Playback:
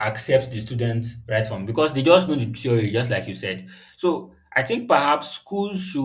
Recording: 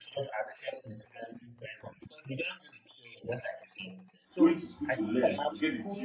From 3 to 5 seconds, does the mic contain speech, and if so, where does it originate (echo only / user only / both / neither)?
both